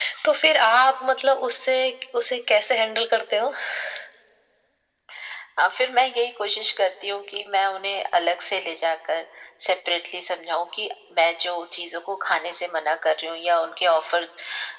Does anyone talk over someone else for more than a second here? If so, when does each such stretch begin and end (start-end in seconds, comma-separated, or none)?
none